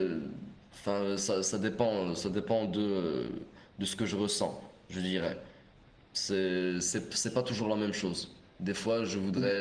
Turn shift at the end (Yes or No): No